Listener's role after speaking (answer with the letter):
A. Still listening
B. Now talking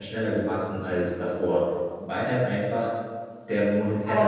B